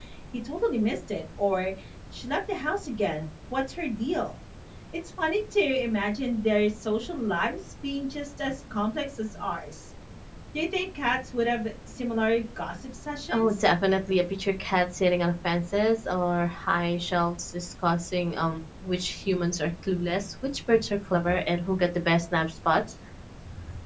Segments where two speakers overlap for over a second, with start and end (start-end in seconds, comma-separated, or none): none